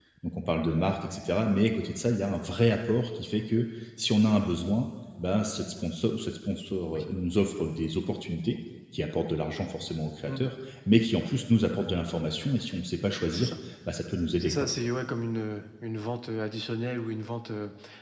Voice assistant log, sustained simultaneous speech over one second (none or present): none